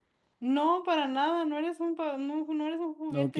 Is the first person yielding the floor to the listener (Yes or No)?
Yes